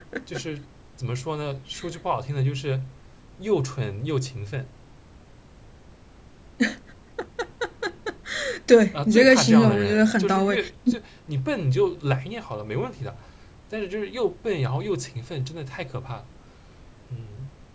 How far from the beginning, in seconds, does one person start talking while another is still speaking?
8.9 s

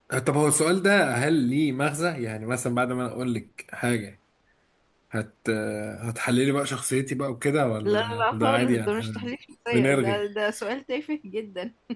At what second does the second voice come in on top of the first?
7.8 s

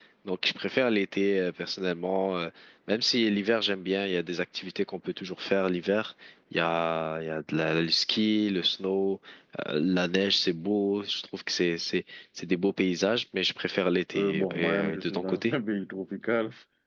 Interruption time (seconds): 14.1 s

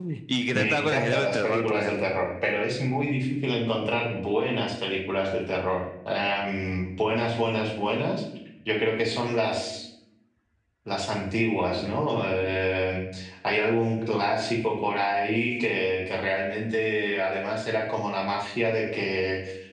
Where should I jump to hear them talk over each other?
0.6 s

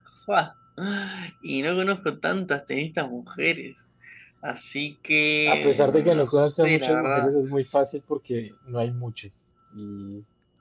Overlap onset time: 5.5 s

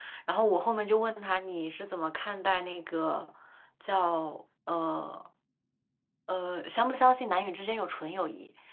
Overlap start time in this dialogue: none

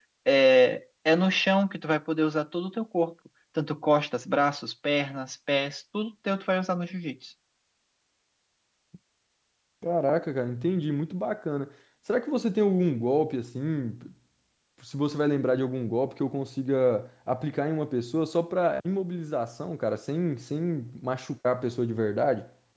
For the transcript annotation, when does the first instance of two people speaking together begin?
none

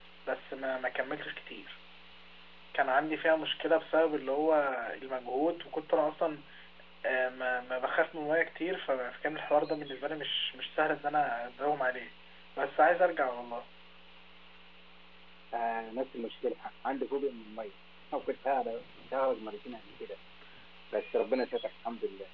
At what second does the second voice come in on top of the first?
none

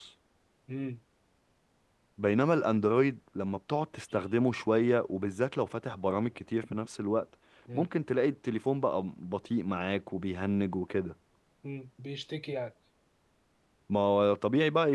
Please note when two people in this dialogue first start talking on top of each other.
none

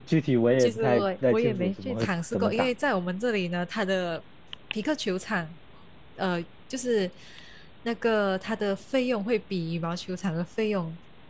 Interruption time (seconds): 0.6 s

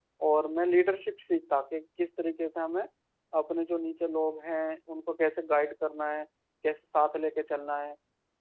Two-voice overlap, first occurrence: none

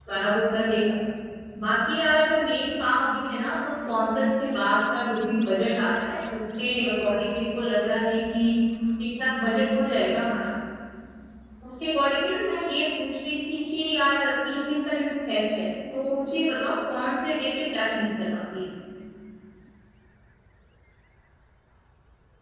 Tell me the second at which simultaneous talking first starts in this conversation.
none

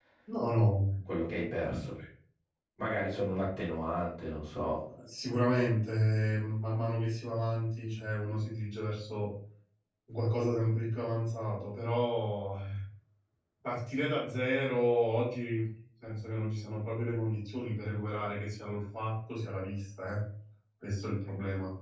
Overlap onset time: none

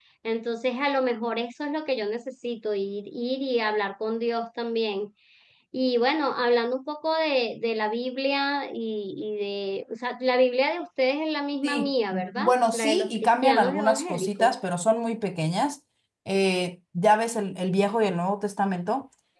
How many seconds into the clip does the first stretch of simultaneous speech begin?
11.6 s

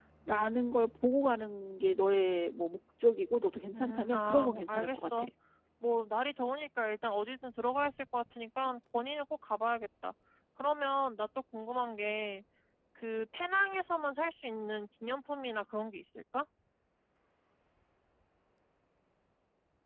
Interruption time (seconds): 3.7 s

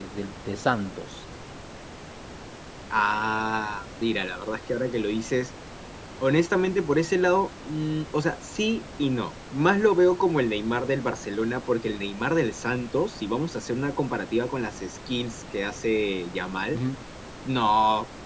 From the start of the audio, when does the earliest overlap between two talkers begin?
none

